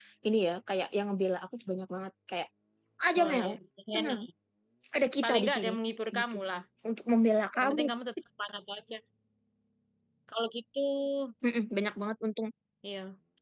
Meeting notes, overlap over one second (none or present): none